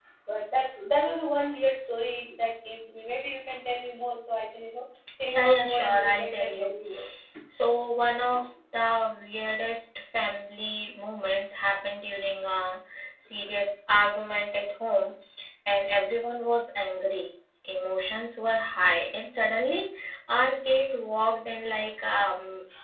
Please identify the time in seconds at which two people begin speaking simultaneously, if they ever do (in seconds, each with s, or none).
5.3 s